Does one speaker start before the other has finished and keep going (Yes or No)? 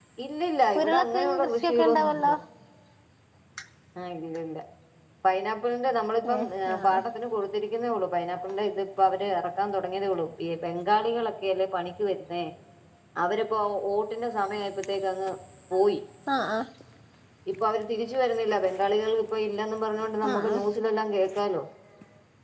Yes